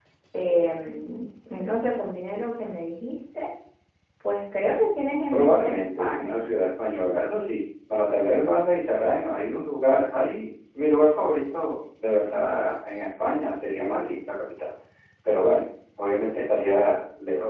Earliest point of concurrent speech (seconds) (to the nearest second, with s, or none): 5 s